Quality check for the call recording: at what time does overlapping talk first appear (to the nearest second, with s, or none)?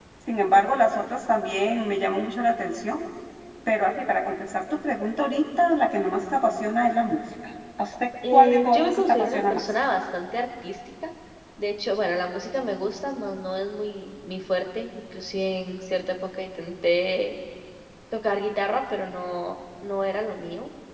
8 s